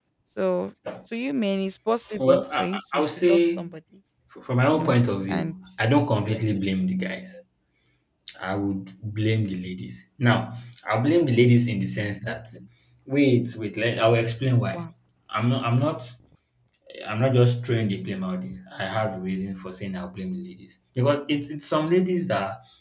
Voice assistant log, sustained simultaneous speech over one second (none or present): present